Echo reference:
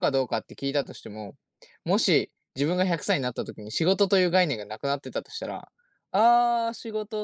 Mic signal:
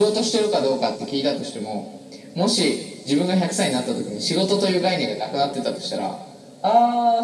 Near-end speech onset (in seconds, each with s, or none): none